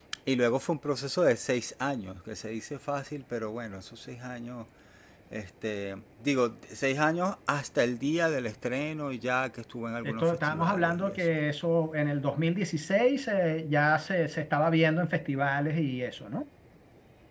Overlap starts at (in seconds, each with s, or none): 10.0 s